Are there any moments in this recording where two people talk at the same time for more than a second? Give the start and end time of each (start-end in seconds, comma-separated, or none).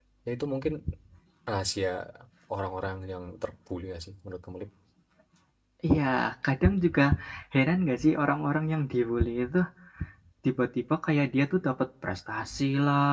none